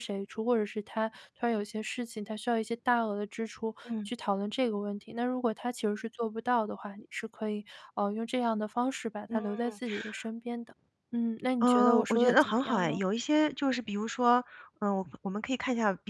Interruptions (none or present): present